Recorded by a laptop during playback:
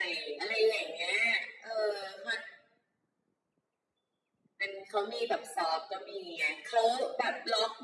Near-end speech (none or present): none